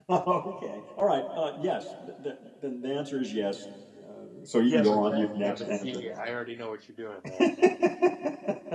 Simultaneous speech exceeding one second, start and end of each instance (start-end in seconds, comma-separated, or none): 4.7-6.0